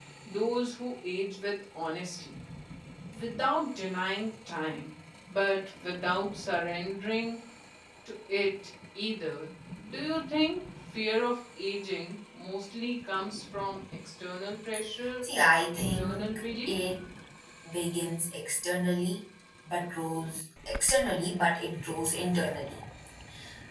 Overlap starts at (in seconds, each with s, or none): 15.2 s